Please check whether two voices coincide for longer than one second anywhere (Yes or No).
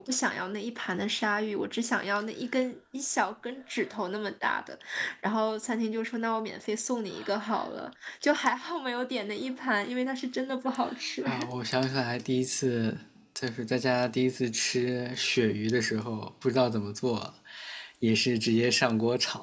No